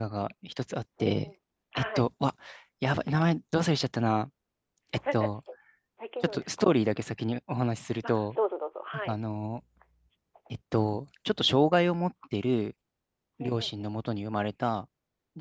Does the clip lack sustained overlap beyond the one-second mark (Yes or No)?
Yes